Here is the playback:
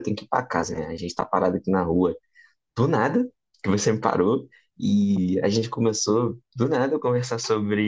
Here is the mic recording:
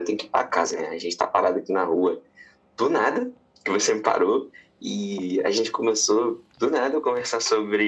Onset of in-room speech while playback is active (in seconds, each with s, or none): none